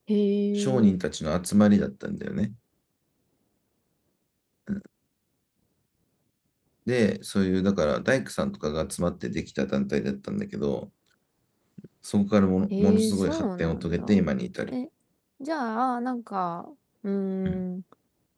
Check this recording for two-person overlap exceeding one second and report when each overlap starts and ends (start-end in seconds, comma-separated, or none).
12.7-14.2